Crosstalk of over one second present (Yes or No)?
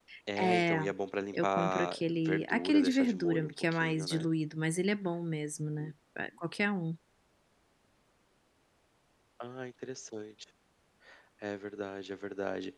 Yes